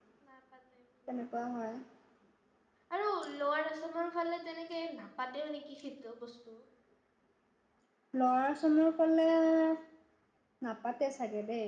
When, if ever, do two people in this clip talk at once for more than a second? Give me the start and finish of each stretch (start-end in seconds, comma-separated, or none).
none